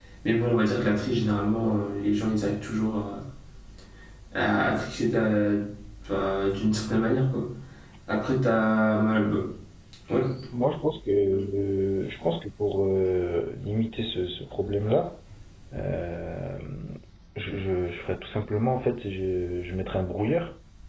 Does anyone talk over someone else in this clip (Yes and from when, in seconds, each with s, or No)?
No